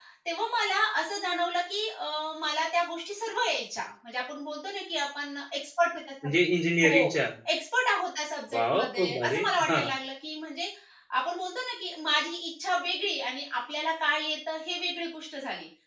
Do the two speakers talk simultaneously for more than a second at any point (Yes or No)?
Yes